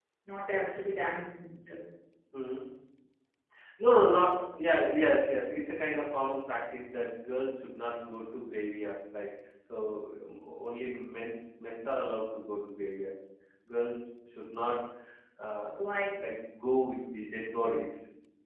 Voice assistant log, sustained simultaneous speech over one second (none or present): none